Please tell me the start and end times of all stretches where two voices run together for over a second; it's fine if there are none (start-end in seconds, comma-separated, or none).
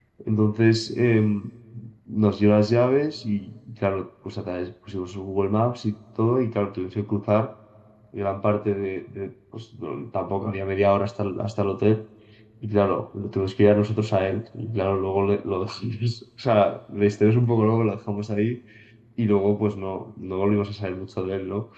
none